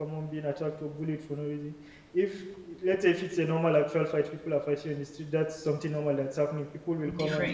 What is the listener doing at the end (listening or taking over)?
listening